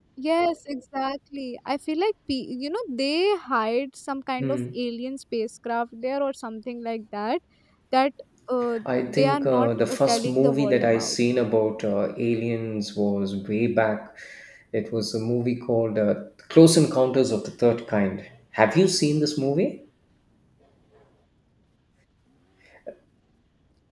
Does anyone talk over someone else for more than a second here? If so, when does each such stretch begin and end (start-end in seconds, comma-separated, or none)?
8.8-11.2